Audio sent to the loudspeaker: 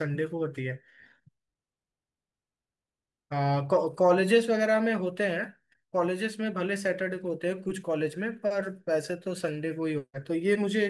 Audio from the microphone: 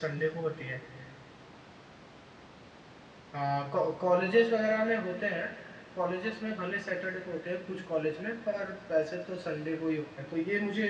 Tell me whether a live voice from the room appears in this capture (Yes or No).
No